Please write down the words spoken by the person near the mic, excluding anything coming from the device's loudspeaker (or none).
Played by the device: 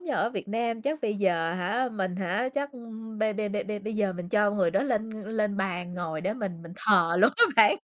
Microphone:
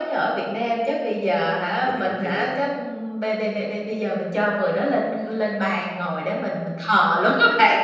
Mình hiểu chứ.